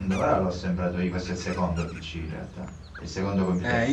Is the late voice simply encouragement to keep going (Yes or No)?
No